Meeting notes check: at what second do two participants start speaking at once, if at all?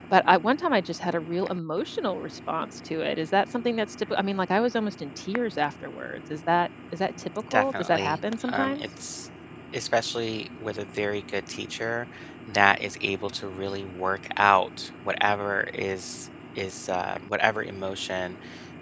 7.5 s

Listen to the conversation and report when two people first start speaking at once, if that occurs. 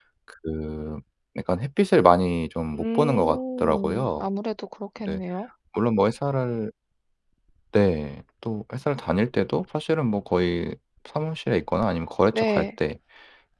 2.8 s

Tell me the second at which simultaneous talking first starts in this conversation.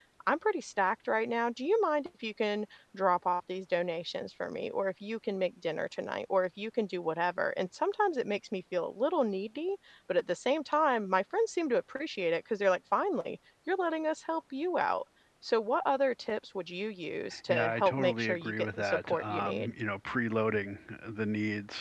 17.5 s

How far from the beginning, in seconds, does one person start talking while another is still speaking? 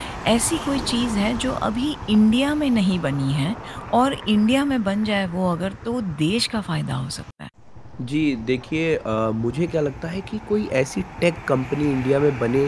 none

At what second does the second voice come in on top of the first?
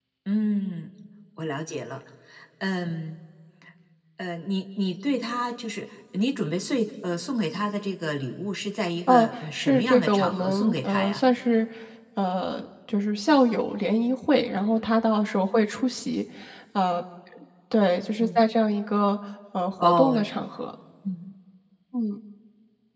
9.1 s

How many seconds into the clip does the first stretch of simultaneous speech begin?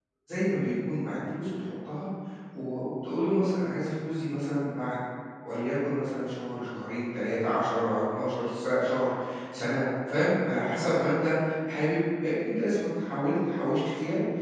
none

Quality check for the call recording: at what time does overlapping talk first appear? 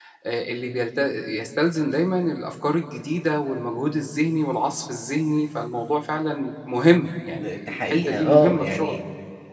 7.4 s

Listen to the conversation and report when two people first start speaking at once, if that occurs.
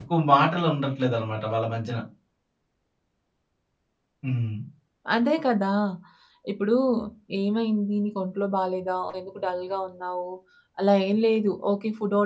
none

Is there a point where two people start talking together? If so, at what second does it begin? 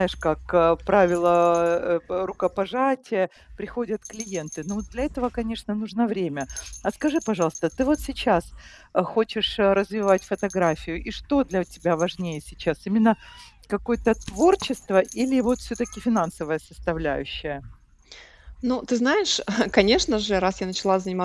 none

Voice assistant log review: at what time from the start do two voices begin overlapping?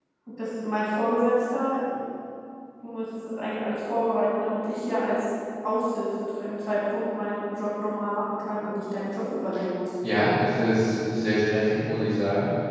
none

